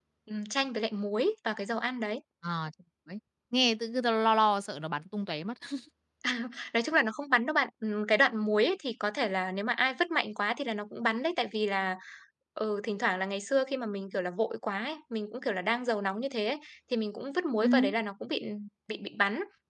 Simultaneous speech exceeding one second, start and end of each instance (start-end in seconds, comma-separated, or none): none